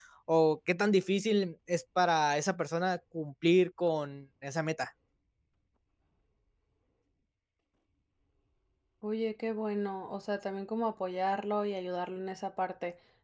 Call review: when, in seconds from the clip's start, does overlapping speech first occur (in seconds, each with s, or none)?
none